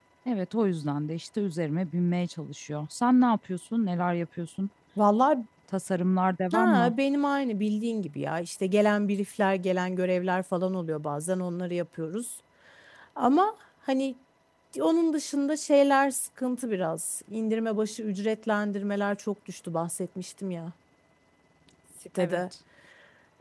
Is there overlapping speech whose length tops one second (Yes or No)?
No